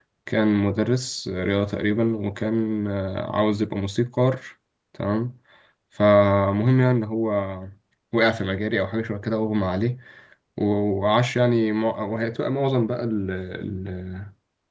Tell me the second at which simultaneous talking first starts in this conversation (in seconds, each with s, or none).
none